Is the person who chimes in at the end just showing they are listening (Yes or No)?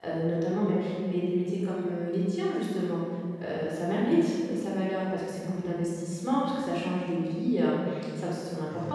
No